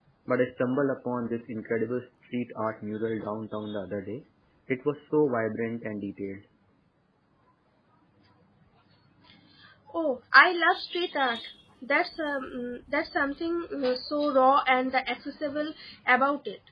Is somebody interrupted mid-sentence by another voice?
No

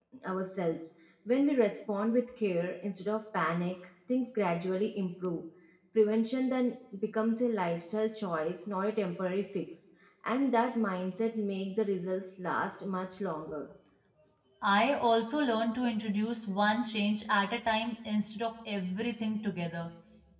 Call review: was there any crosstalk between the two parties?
No

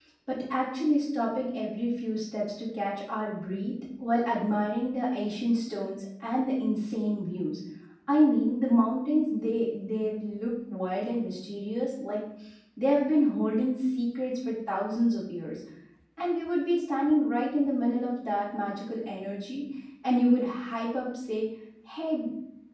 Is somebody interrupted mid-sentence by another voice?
No

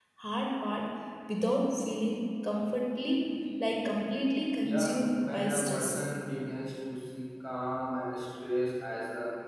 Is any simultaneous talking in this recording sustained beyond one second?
Yes, from 4.6 s

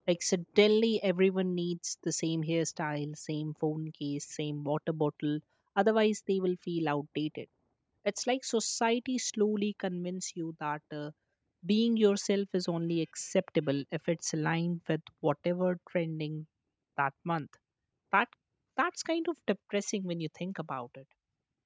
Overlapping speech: No

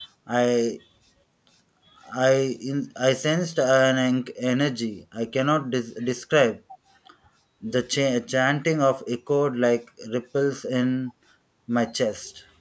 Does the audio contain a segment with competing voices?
No

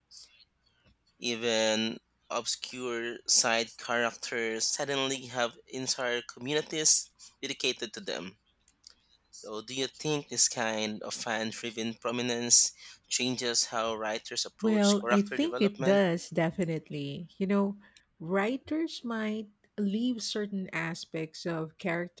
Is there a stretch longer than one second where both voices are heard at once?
Yes, from 14.6 s

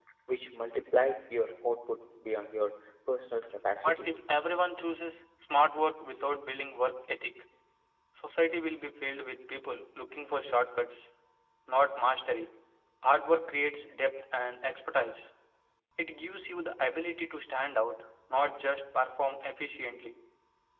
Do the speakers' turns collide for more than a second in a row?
No

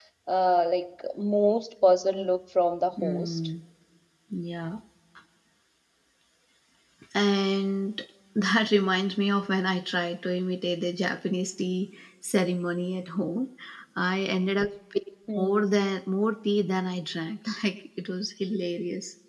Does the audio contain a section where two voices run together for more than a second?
No

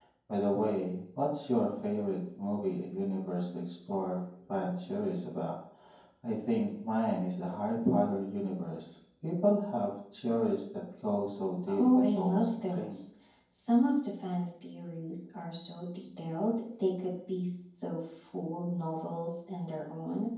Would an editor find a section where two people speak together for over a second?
Yes, from 11.7 s

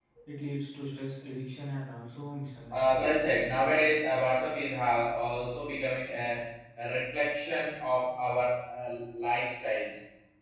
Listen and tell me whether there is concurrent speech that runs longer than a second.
No

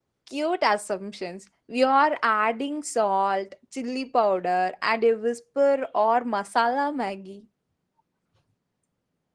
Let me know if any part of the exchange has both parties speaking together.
No

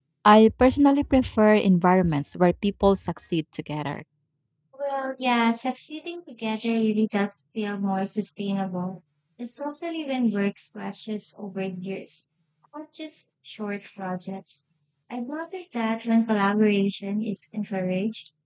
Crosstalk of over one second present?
No

